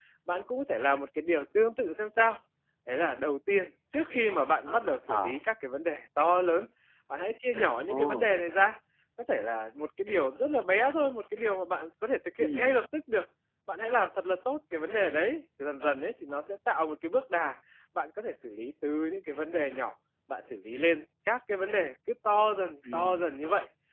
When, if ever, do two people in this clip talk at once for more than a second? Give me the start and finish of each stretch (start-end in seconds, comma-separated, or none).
none